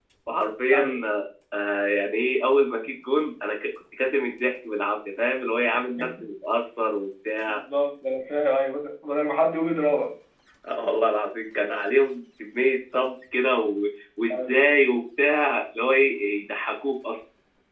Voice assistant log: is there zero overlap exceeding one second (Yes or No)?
Yes